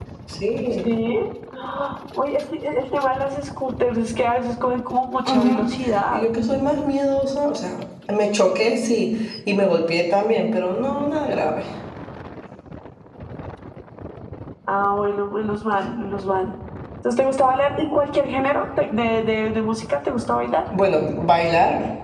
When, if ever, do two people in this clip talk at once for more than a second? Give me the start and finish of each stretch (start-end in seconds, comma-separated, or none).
none